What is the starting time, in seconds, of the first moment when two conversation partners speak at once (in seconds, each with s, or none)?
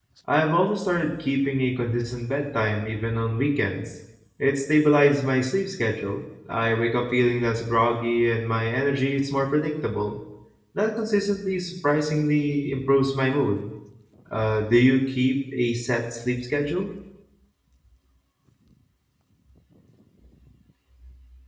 none